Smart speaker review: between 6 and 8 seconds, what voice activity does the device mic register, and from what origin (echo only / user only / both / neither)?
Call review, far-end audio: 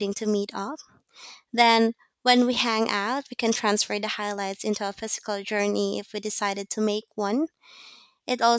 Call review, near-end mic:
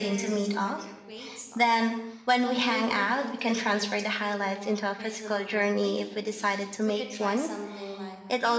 both